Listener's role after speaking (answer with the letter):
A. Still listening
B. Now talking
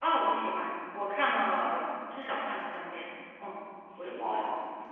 B